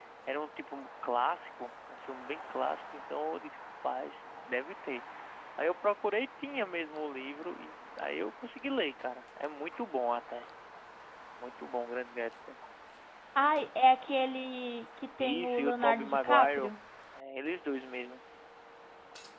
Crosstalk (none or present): present